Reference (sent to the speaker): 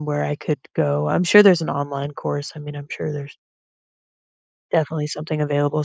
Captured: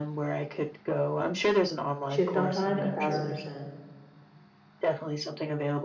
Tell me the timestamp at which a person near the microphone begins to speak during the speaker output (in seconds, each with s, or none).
2.1 s